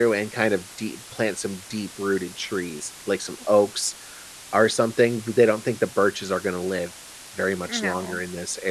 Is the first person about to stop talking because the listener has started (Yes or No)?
No